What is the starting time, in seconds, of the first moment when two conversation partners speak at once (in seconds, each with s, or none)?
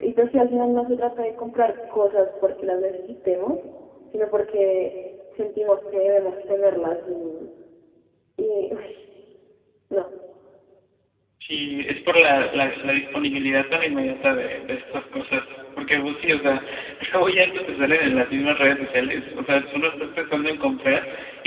none